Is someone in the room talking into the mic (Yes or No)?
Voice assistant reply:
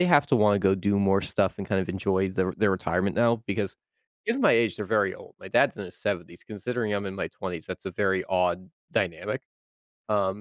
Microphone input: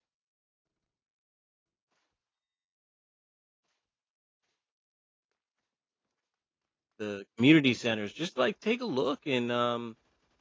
Yes